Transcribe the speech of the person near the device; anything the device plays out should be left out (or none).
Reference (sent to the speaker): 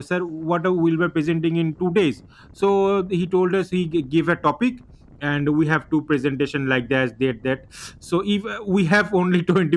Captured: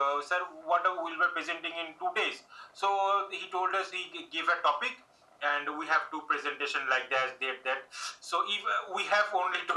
none